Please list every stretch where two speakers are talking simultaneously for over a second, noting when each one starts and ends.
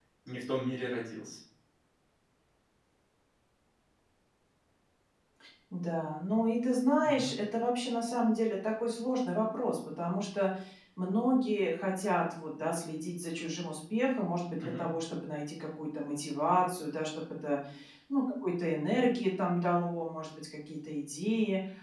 none

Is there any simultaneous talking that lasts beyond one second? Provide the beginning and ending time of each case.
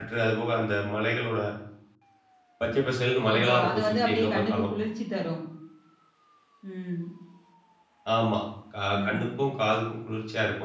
3.3-4.6

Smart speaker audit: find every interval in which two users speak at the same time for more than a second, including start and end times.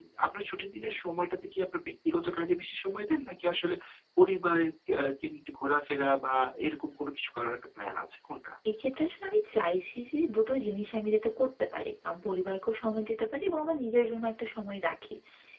none

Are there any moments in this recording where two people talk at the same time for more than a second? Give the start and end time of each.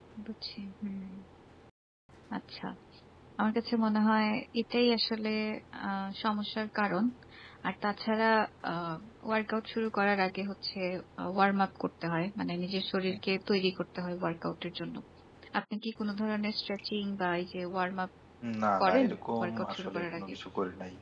18.8-20.3

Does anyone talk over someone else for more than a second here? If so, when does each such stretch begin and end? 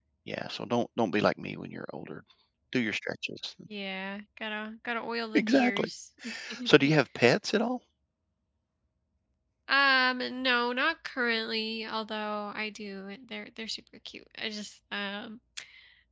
none

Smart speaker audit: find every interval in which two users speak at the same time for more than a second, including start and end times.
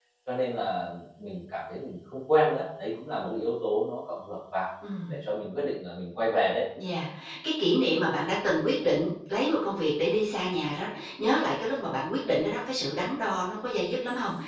none

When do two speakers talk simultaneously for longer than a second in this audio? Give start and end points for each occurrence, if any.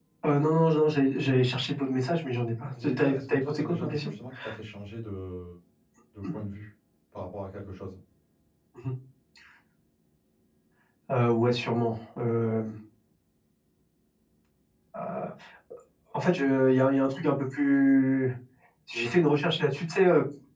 2.8-4.1

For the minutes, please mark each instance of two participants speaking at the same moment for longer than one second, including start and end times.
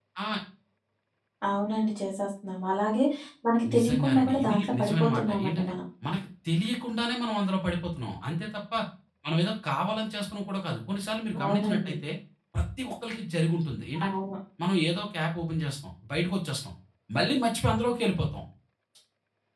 3.7-5.7

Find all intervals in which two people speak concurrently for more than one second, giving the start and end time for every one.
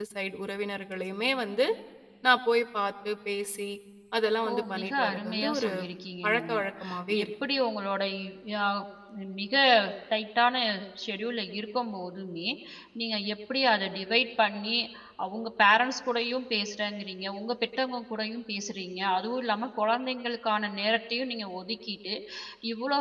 4.5-5.7

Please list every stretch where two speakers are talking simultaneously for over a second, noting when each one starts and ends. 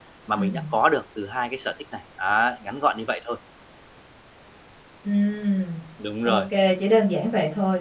none

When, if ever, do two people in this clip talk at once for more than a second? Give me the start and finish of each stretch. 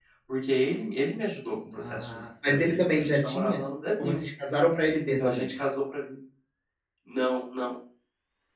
1.7-3.6

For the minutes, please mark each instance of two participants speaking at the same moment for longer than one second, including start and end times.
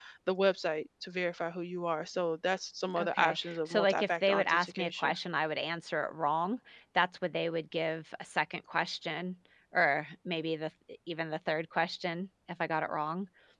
3.0-5.1

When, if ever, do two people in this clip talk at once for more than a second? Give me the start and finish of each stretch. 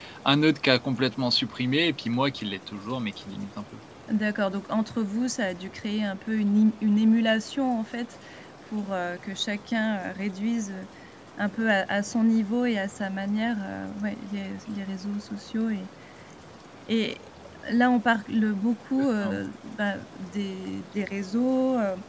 none

